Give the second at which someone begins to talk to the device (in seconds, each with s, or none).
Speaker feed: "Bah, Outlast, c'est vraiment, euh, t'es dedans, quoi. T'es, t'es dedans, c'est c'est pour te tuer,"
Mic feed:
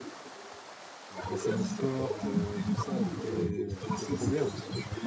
1.2 s